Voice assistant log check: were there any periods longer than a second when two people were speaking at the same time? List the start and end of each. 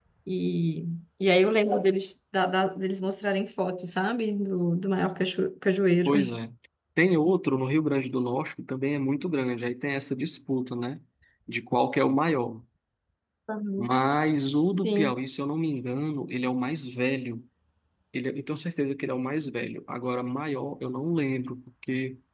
none

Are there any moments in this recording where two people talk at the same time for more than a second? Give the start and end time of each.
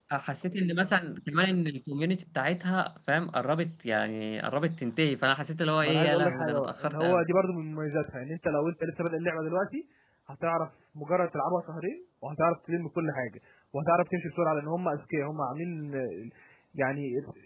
5.8-7.2

